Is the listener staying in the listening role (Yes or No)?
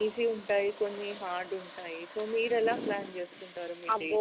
No